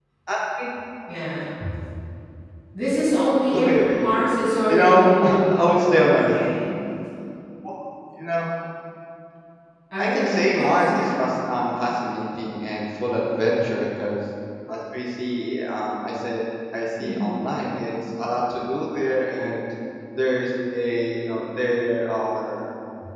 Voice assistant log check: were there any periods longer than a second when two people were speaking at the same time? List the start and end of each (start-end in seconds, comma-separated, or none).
4.7-6.3, 10.0-11.2